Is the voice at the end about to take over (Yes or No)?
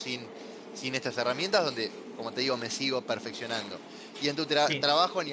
No